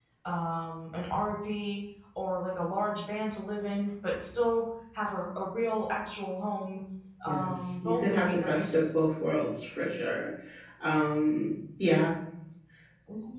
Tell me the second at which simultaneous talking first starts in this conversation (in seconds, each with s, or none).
7.3 s